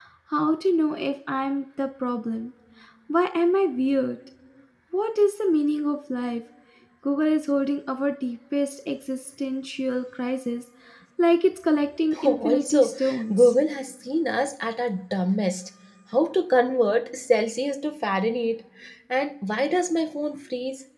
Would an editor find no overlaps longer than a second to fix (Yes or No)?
No